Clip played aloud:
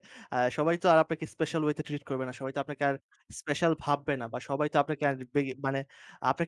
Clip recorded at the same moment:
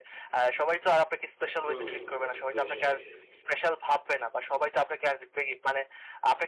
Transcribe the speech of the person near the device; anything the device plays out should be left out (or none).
হুম, এটা তো নিশ্চয়ই।